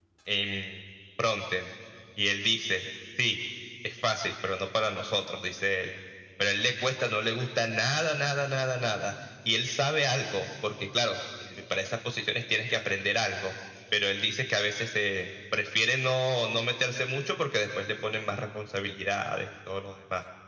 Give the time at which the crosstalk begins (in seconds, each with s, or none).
none